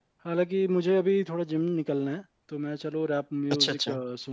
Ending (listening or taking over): listening